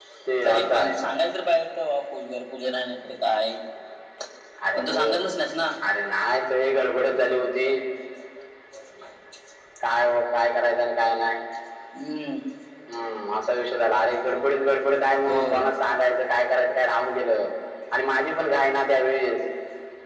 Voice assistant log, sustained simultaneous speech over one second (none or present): none